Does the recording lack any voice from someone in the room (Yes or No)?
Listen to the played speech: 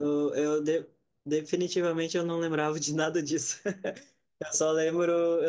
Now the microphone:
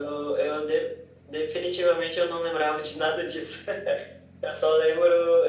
Yes